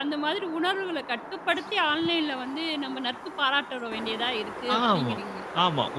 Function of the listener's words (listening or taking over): taking over